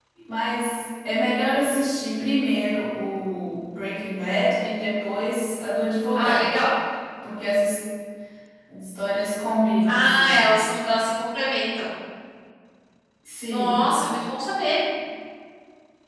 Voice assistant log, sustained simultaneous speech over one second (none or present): none